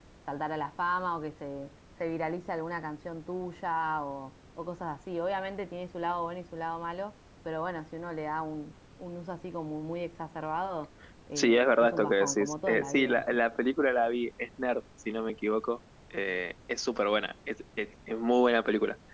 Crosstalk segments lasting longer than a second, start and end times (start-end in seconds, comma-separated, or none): 11.3-13.2